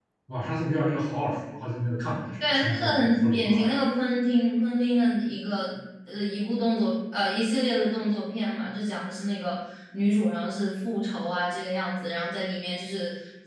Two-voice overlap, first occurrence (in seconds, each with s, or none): 2.4 s